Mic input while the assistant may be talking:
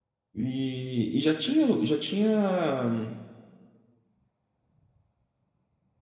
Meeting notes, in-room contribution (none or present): present